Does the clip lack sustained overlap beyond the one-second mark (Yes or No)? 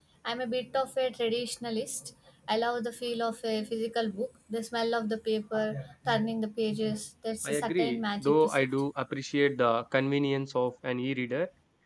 No